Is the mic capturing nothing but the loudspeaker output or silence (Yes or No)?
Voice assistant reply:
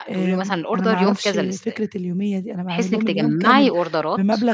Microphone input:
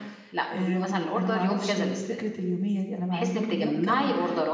Yes